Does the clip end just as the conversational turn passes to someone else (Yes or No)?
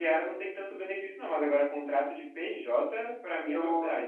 Yes